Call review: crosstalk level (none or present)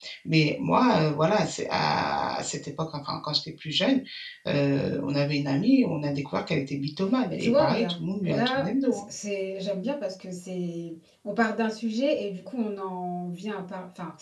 present